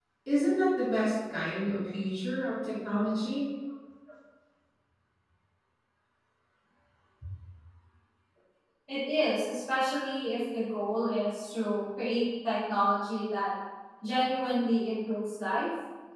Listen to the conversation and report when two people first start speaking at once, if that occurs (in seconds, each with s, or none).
none